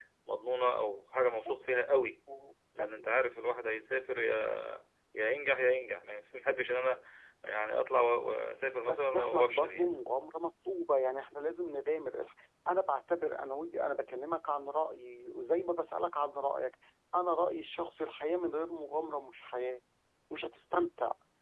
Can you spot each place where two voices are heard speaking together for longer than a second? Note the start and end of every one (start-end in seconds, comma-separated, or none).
8.7-10.0